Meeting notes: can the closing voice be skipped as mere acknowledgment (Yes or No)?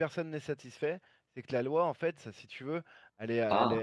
Yes